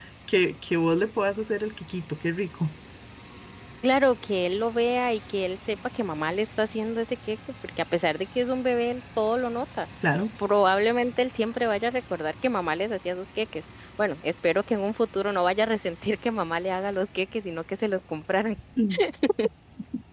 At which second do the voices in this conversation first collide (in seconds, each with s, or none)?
none